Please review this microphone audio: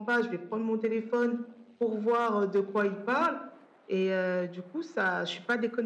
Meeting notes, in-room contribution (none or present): none